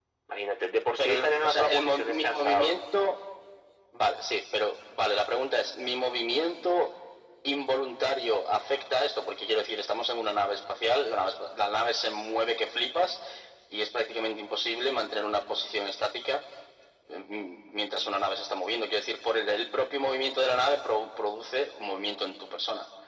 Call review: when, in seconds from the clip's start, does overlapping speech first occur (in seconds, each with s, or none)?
1.0 s